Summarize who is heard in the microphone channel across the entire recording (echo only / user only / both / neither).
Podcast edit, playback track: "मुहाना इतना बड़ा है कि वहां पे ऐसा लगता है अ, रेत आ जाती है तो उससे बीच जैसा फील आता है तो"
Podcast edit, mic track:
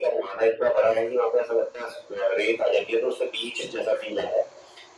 echo only